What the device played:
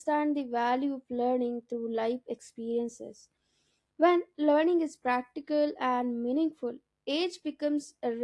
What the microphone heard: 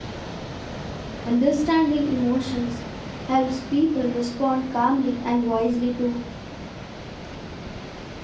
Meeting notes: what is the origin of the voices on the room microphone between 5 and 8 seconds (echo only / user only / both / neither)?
user only